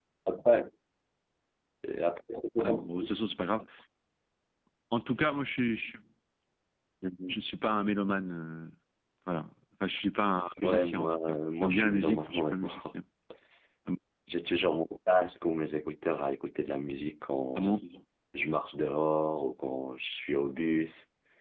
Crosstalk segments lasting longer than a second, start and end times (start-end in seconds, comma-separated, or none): 10.6-12.9